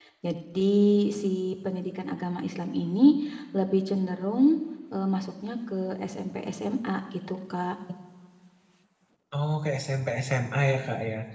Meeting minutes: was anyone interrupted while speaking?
No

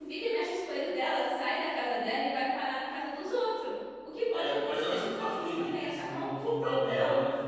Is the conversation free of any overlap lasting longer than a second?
No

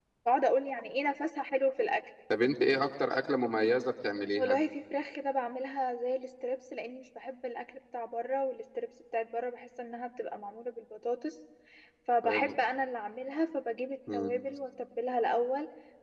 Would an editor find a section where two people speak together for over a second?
No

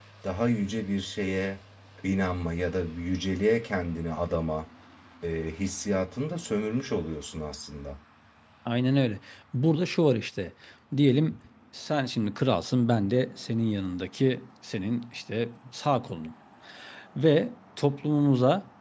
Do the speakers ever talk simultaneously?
No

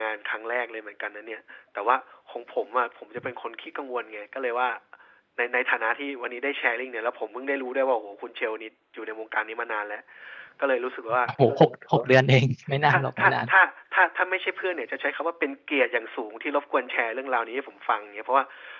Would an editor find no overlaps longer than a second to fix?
Yes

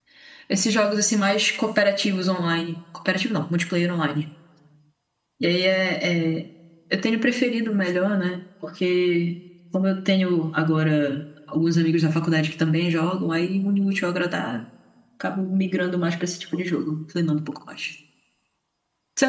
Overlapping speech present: No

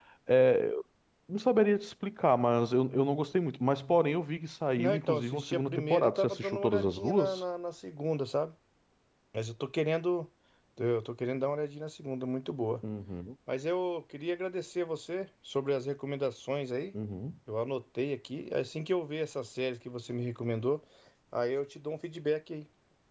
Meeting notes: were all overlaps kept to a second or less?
No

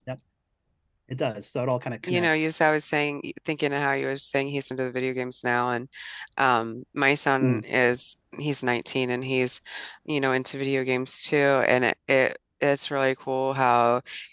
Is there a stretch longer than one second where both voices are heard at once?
No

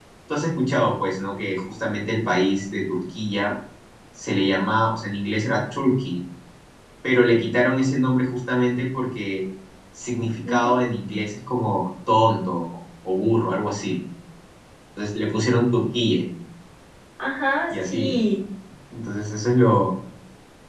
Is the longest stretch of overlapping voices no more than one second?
Yes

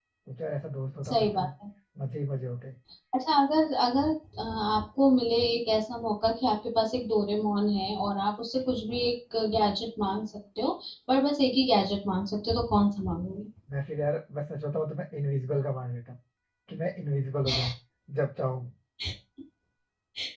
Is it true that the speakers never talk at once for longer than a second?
Yes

